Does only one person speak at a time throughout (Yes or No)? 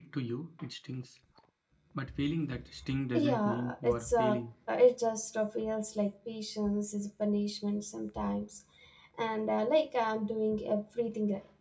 No